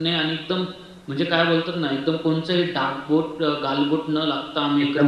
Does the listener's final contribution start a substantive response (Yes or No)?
Yes